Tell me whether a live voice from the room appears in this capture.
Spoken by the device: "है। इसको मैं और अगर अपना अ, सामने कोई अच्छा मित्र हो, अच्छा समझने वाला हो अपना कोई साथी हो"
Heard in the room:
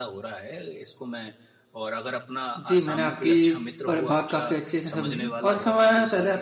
Yes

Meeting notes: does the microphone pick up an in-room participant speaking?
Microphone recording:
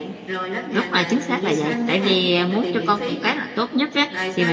Yes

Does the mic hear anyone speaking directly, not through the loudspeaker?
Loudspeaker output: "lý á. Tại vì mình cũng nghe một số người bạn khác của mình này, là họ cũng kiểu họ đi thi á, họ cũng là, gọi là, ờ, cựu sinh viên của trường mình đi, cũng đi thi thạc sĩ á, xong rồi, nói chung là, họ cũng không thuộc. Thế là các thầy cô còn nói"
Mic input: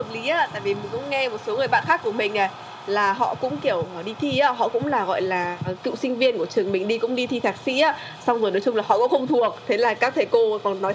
No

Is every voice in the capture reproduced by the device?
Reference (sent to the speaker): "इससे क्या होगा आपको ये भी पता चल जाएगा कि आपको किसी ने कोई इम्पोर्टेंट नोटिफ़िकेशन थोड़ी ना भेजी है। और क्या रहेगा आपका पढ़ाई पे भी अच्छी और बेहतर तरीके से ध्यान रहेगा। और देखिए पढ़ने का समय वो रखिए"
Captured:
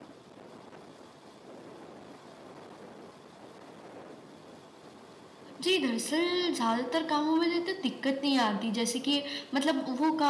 No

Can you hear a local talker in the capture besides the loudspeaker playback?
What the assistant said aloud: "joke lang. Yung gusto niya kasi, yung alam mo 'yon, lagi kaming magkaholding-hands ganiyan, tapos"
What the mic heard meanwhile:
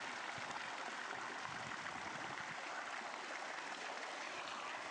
No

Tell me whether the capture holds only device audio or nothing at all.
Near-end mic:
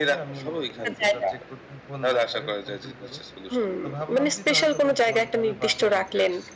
No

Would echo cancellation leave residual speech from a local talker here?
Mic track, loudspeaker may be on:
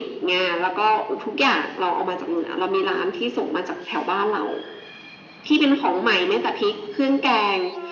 No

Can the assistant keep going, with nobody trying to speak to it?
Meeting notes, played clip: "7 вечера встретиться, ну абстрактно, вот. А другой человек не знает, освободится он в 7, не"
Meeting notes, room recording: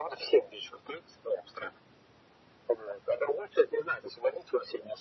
Yes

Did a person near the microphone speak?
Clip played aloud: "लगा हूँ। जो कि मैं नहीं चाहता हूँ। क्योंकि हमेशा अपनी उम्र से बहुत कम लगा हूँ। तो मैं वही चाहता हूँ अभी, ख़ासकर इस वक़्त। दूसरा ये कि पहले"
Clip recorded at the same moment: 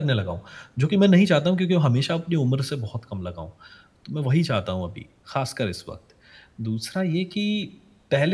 No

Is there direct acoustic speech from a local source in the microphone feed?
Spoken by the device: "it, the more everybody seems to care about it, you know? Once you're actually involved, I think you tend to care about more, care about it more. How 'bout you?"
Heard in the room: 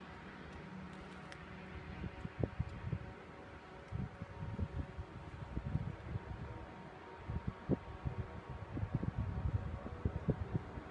No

